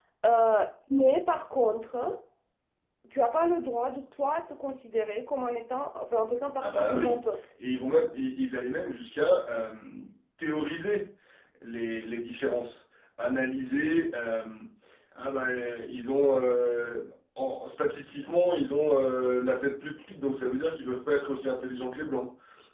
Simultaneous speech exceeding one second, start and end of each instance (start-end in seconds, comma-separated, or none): none